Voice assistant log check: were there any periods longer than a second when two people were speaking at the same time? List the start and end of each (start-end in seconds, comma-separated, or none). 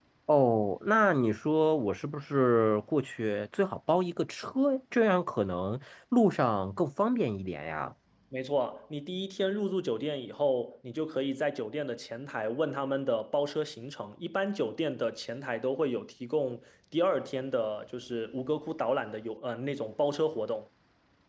none